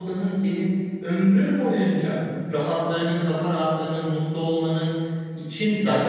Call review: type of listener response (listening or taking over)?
taking over